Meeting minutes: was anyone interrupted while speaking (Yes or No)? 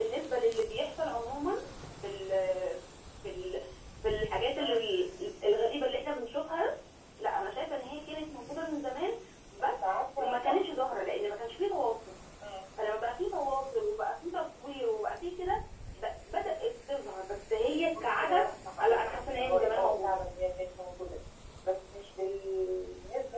Yes